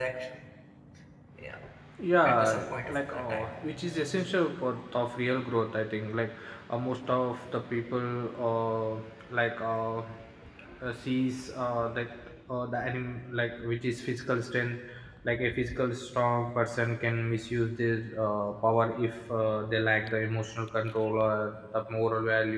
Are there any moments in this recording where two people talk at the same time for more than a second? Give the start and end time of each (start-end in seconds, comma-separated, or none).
2.2-3.5